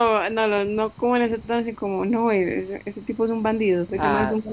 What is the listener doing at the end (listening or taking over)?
taking over